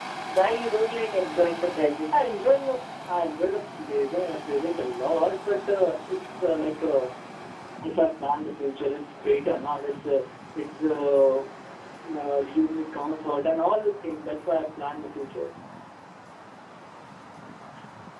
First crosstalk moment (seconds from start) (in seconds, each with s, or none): none